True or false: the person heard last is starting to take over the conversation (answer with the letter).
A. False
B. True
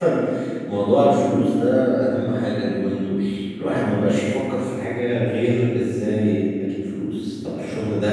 A